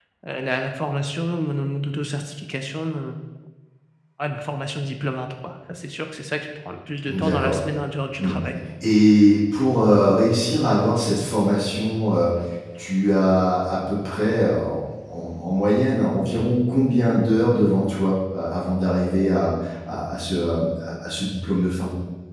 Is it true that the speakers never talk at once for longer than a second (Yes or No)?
Yes